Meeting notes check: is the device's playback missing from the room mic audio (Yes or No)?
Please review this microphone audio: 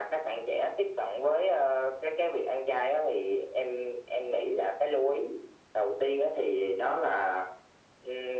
No